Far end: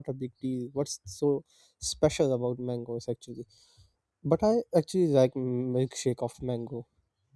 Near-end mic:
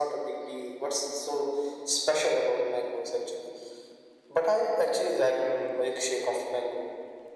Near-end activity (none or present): none